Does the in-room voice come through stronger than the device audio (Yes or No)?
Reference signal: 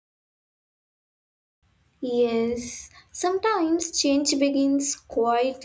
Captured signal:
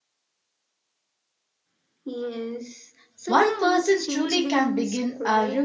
Yes